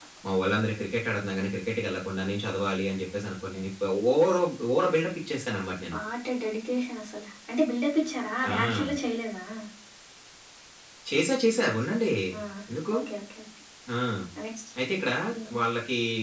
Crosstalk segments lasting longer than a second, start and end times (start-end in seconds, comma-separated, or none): none